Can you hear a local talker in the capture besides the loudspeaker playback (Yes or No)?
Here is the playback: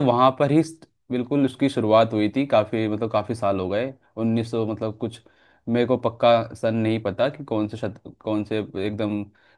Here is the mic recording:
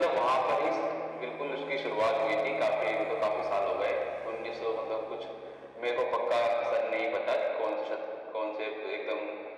No